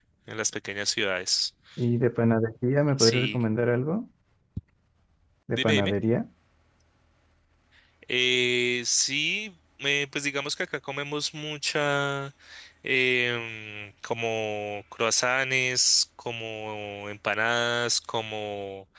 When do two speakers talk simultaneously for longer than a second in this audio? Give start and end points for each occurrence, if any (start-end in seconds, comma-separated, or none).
none